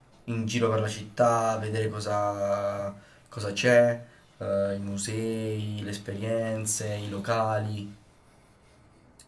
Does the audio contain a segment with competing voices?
No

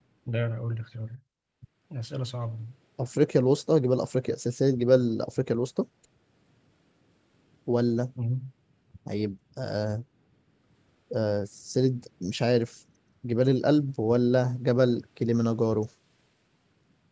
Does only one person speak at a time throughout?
Yes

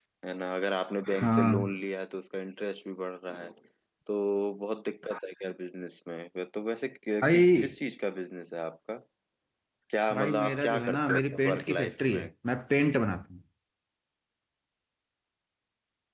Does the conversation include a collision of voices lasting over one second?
Yes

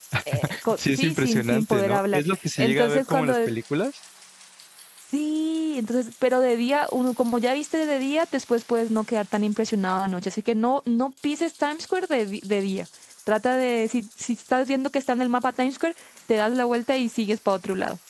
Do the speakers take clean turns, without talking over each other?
No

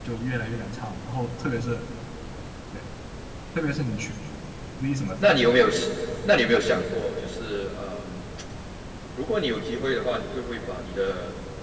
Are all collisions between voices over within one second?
Yes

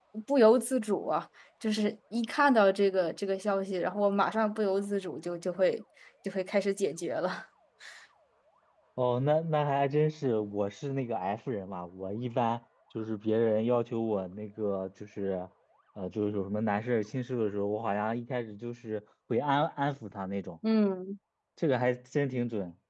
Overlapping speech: No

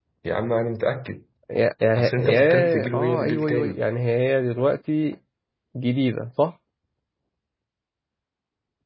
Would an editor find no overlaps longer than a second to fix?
No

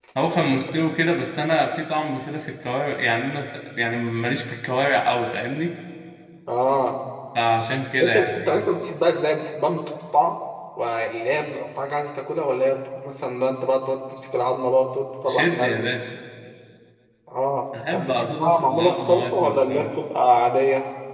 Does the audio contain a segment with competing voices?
Yes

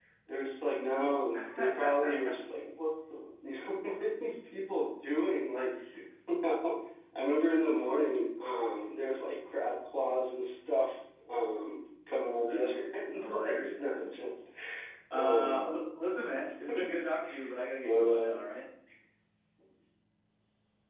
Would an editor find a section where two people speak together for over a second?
Yes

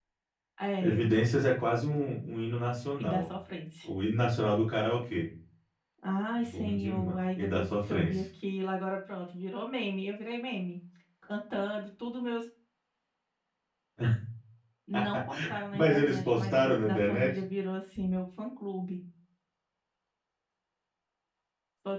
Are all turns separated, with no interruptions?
No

